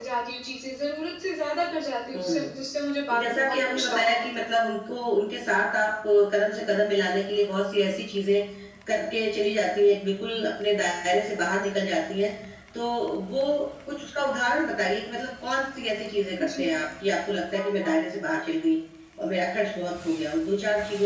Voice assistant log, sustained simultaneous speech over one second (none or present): present